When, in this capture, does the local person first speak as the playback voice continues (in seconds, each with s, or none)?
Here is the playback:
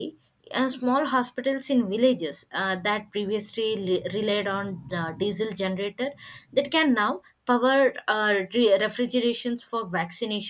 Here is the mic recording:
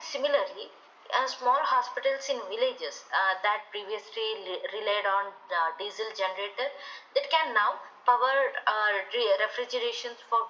none